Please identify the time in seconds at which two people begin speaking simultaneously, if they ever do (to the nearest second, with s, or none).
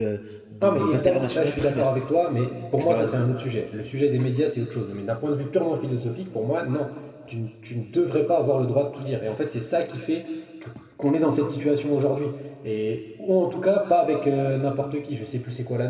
1 s